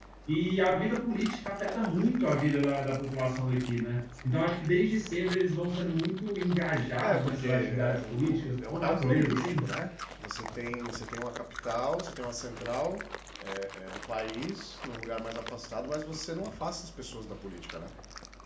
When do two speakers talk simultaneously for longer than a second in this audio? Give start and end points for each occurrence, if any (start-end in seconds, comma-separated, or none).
7.0-9.5